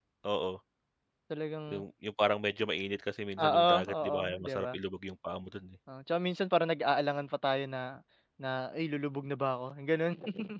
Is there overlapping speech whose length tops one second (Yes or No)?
Yes